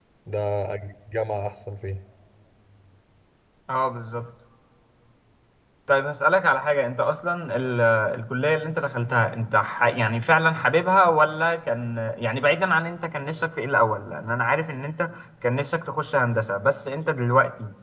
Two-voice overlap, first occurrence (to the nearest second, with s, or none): none